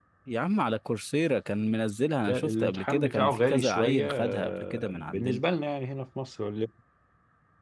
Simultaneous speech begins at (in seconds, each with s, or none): 2.3 s